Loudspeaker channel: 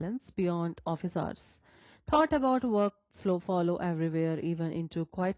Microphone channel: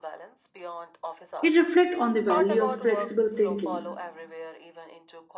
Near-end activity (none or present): present